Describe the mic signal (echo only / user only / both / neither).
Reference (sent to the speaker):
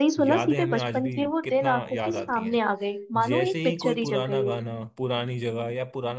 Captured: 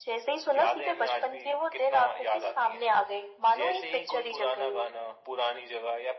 echo only